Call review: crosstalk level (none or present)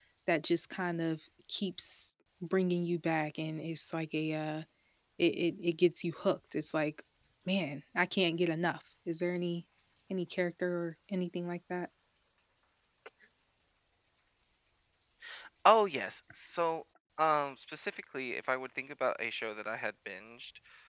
none